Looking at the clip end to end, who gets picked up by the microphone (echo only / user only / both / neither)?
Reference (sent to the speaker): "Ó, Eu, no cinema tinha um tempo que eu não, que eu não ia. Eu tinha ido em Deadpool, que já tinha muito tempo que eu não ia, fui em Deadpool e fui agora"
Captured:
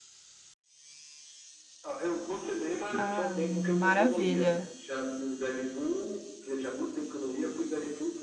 both